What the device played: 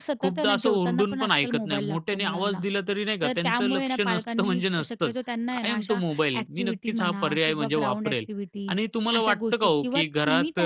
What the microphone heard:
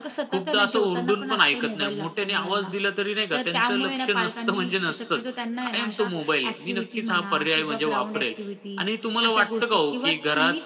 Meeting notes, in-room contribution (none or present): none